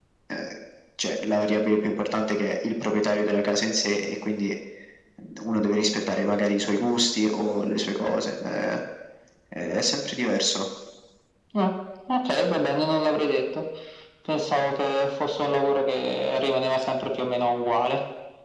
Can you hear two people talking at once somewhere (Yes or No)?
No